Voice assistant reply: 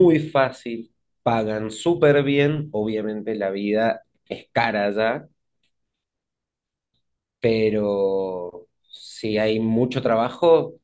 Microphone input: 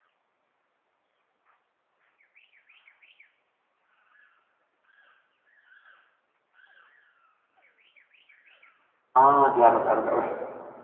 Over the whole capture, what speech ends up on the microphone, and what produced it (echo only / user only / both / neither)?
user only